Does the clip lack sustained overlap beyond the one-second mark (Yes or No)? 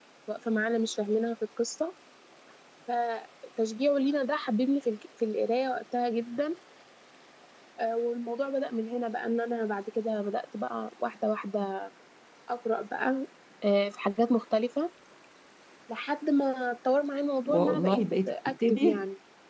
No